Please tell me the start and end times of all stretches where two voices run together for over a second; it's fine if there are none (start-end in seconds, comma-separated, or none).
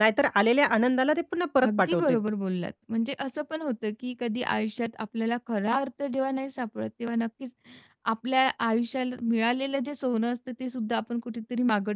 none